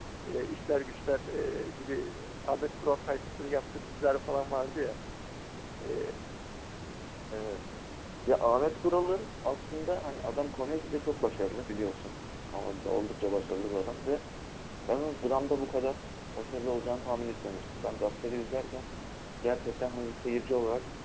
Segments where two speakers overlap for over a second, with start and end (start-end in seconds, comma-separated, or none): none